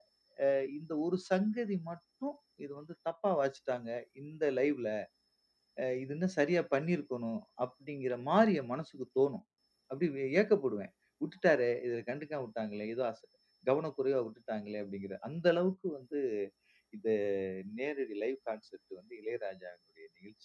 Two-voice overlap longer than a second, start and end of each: none

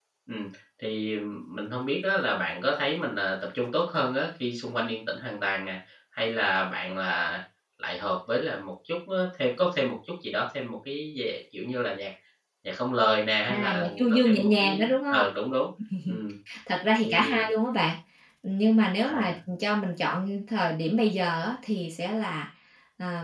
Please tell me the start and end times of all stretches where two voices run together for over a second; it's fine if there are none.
13.5-15.3

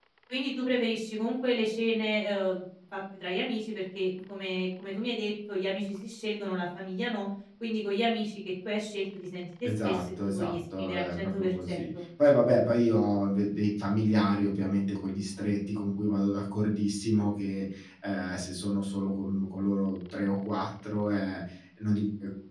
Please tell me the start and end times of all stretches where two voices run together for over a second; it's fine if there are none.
9.7-11.9

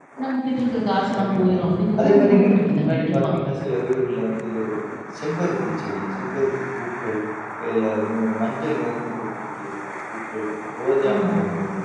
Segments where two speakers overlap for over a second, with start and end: 2.0-3.3

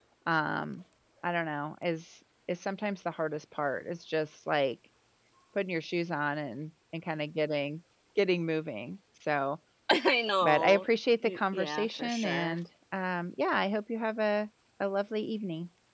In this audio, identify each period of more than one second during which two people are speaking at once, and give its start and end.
11.2-12.6

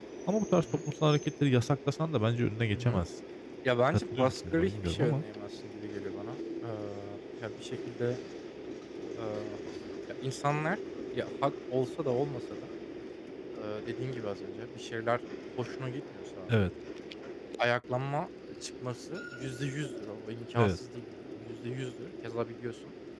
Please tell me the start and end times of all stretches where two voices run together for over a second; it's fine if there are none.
3.9-5.2

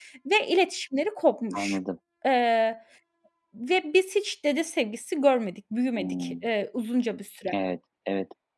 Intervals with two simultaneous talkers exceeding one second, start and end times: none

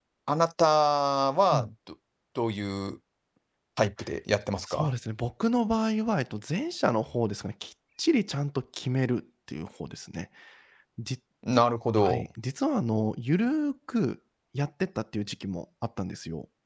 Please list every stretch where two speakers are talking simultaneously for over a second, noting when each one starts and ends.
none

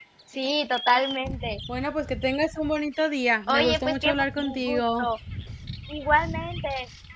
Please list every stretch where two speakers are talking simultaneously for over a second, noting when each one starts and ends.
3.5-5.1

